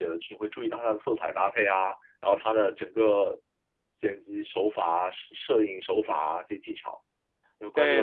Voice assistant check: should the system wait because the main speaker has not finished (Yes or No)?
No